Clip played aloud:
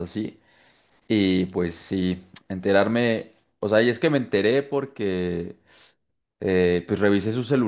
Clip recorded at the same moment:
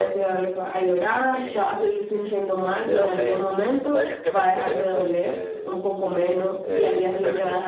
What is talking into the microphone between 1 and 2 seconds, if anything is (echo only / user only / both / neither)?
both